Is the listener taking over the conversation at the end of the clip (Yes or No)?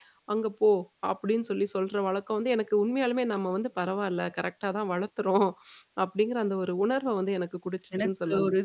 Yes